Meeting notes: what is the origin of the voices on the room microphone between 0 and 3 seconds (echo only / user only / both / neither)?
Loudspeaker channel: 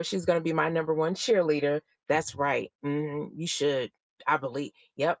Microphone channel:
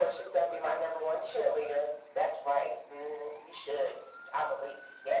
echo only